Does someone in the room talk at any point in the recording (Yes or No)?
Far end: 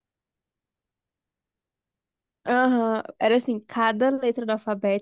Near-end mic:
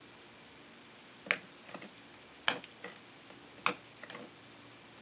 No